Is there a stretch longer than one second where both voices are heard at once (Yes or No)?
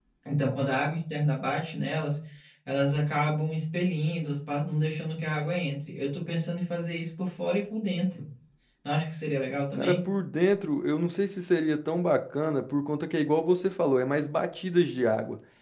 No